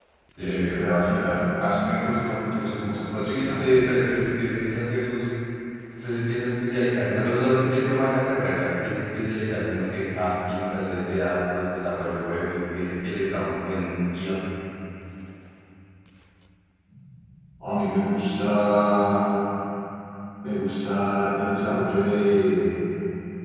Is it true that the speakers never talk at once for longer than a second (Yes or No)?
Yes